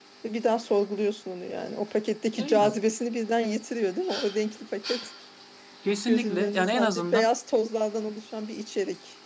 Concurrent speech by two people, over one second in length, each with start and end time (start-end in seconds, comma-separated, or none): 6.1-7.3